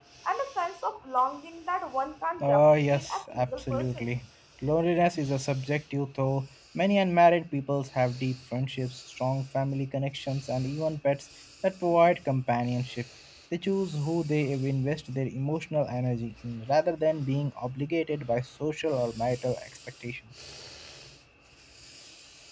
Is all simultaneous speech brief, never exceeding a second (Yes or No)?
No